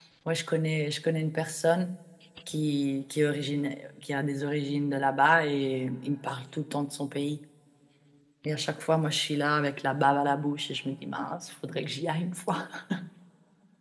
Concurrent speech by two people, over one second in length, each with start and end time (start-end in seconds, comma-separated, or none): none